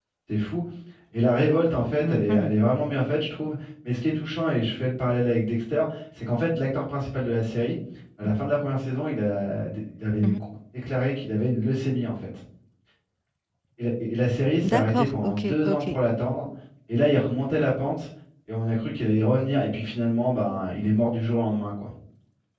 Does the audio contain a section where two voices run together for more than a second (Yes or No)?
Yes